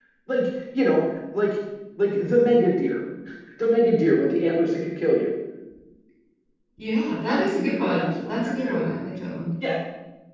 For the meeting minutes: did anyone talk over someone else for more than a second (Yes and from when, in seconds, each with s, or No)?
Yes, from 7.5 s